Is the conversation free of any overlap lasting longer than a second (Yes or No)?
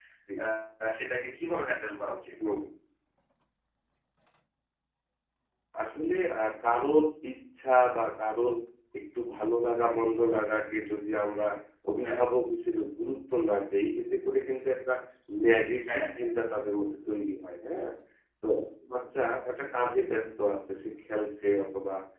Yes